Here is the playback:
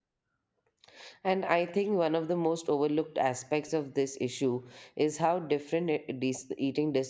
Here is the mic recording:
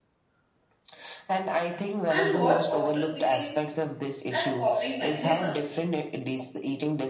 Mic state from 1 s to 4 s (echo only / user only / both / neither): both